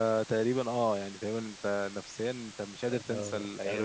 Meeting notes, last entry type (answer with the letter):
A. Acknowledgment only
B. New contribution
B